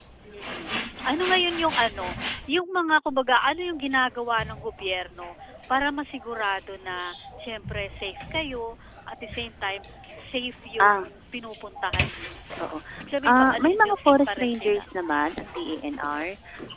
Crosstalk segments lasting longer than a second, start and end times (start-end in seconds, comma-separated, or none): 13.2-14.8